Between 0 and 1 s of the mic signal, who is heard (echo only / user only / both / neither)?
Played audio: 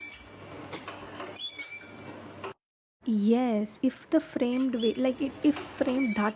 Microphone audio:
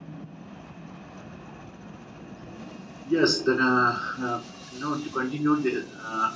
neither